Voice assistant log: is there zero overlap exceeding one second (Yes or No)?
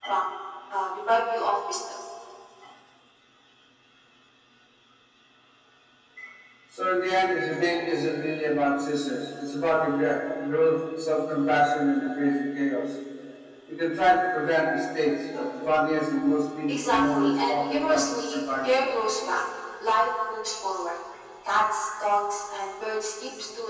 No